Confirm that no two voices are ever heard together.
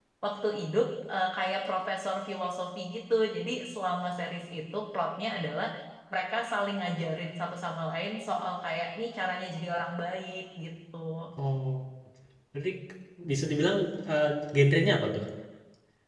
Yes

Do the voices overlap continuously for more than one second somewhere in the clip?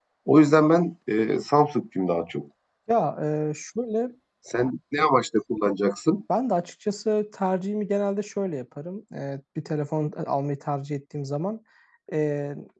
No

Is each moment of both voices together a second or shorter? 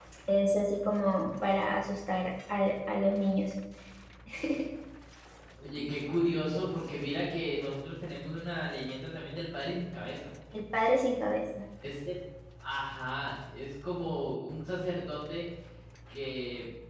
Yes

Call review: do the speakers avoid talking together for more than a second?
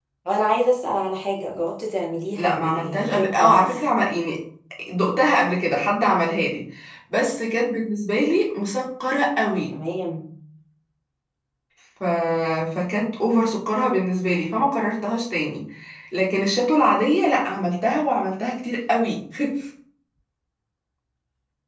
No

